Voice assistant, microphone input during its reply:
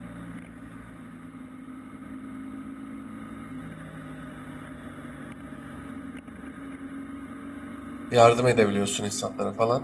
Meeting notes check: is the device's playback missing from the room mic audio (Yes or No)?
Yes